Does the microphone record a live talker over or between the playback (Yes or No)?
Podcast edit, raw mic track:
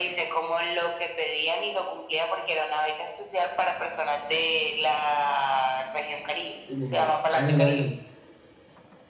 Yes